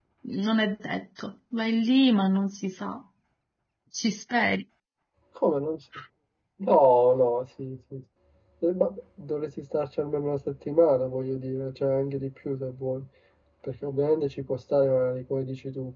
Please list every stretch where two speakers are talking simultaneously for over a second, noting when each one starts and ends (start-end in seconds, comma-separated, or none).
none